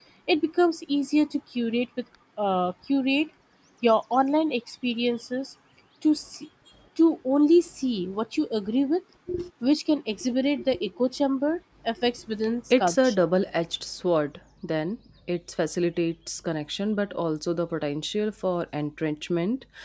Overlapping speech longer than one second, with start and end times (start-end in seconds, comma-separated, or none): none